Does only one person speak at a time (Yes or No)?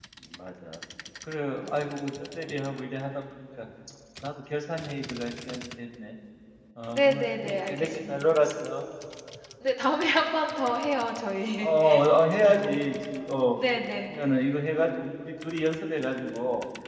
No